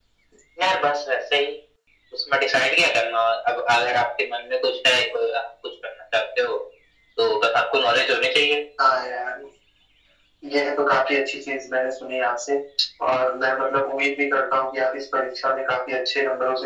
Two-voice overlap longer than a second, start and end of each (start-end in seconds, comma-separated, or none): none